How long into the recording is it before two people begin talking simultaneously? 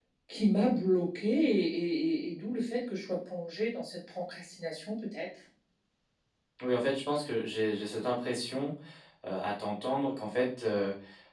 none

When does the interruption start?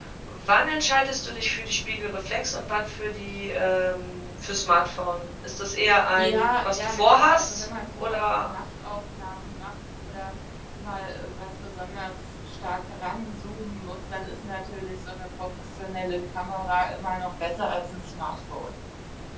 6.2 s

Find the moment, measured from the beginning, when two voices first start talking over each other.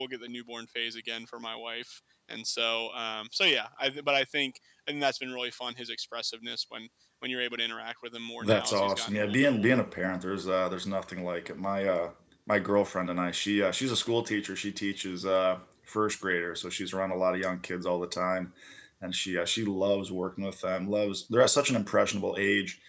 8.4 s

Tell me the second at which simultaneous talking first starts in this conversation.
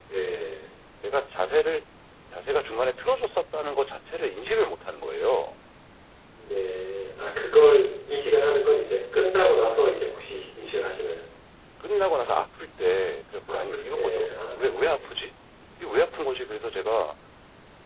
13.5 s

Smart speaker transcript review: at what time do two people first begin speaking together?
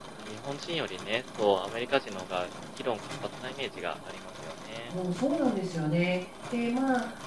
none

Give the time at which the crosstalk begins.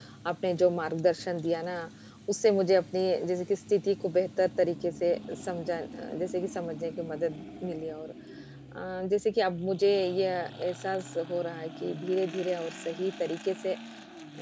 none

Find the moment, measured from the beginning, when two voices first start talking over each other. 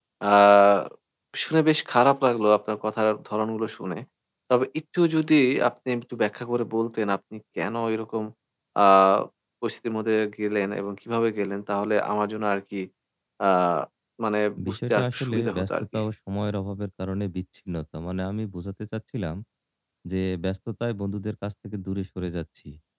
14.7 s

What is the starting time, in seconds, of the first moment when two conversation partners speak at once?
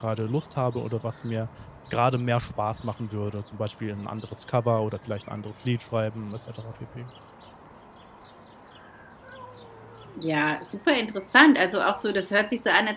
none

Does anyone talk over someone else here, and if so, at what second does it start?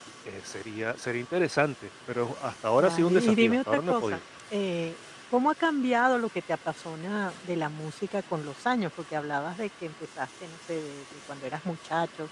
2.8 s

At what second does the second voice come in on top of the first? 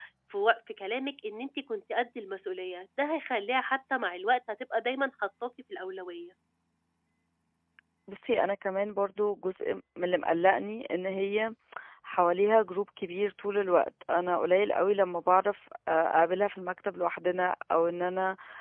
none

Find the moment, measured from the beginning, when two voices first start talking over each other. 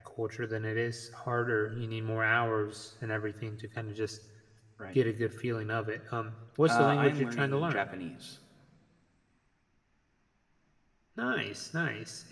6.7 s

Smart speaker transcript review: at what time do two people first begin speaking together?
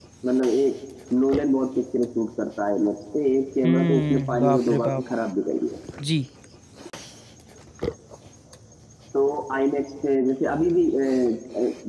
3.6 s

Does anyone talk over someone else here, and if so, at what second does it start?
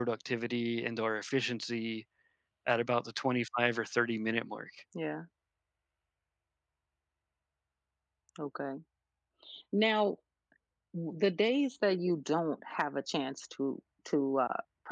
none

